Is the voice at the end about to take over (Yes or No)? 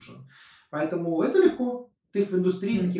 Yes